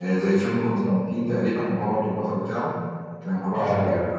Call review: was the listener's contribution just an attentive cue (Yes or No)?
No